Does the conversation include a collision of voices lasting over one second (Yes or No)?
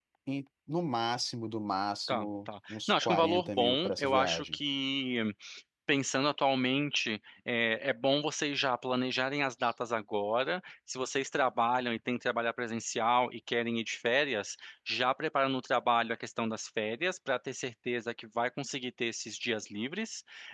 Yes